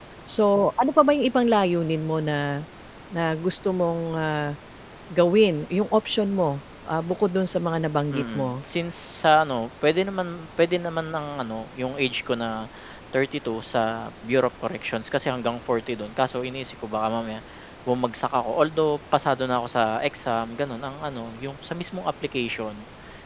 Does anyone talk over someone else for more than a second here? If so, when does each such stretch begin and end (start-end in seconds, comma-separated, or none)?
none